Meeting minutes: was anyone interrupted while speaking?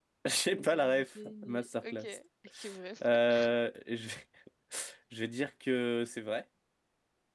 Yes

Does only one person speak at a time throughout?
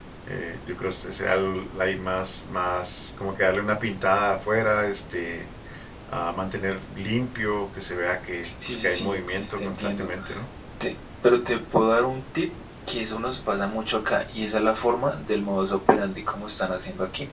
No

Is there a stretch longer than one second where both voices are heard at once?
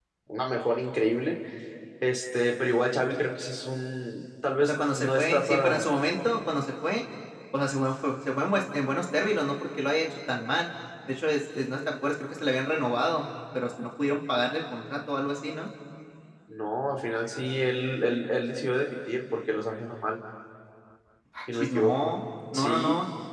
Yes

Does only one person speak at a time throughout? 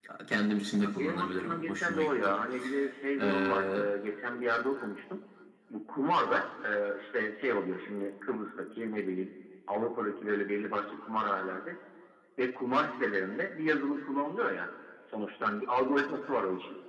No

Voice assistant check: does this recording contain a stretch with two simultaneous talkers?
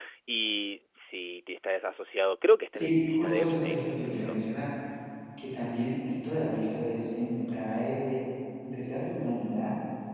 Yes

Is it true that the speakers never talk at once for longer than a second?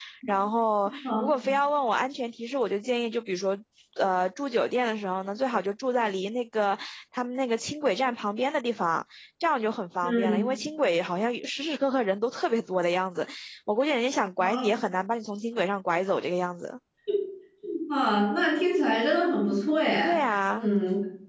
Yes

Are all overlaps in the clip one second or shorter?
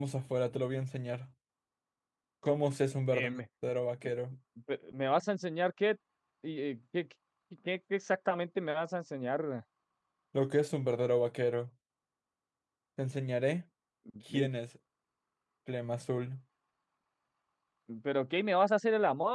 Yes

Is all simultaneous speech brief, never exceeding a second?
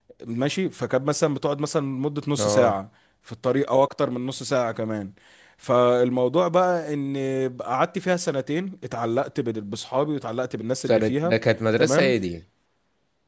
Yes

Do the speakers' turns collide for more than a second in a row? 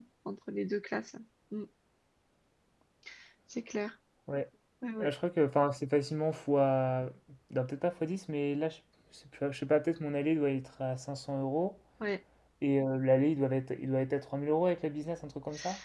No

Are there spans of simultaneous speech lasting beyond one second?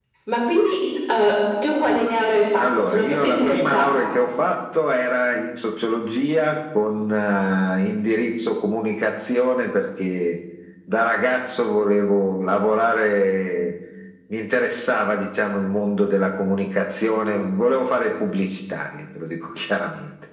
Yes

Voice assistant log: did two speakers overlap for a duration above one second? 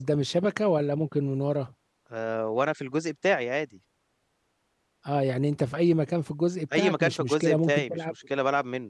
Yes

